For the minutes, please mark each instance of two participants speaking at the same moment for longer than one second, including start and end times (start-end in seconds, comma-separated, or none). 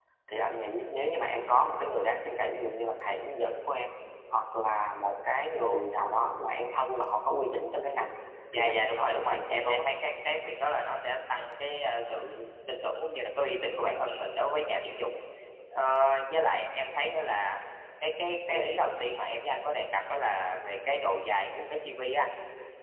8.5-9.9